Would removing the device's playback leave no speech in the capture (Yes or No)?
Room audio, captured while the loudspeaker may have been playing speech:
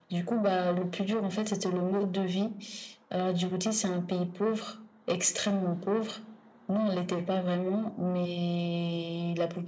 Yes